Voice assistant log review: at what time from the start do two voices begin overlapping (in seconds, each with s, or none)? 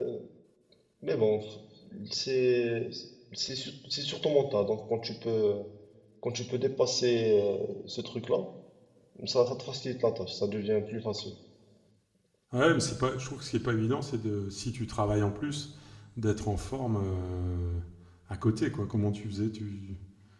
none